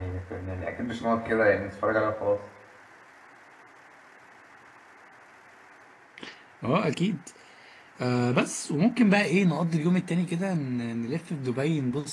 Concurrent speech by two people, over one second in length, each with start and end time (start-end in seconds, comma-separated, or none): none